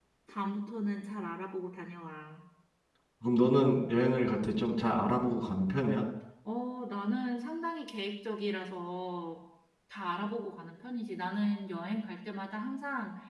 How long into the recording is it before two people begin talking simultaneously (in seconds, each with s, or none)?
none